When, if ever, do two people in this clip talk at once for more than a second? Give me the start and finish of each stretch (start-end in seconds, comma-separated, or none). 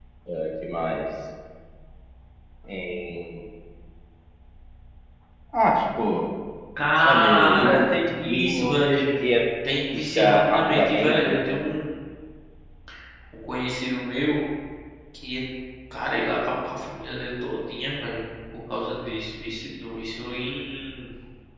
7.0-9.0, 9.9-11.4